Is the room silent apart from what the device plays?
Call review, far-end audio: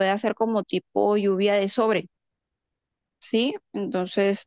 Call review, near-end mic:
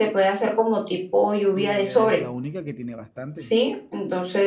No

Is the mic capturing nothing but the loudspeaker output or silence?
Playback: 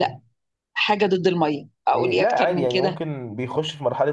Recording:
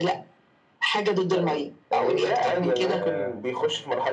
No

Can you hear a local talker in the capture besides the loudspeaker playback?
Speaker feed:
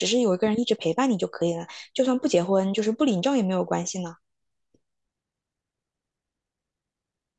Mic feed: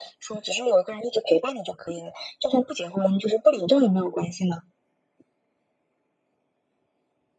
No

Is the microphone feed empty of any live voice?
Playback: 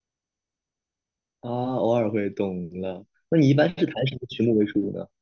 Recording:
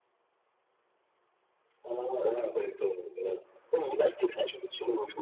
Yes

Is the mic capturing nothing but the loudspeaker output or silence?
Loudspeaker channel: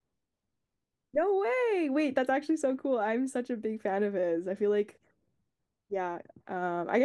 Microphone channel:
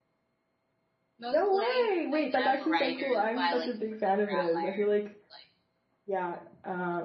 No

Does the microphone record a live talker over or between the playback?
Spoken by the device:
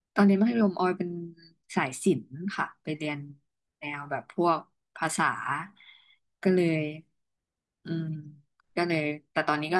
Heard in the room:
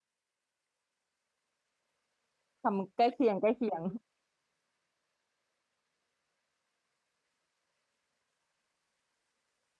Yes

